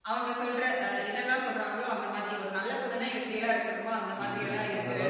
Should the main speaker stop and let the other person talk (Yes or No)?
Yes